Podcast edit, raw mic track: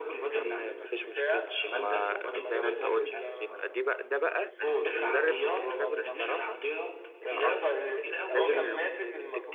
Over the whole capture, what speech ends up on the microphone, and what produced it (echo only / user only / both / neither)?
both